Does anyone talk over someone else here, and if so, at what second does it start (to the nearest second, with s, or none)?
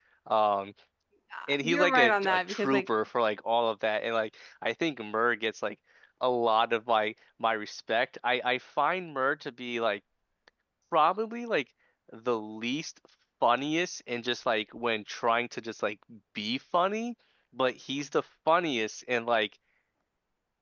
1 s